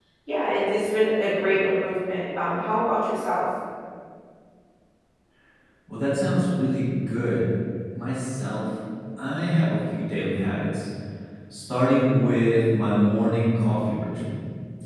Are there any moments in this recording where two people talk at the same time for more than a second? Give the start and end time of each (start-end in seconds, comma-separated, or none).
none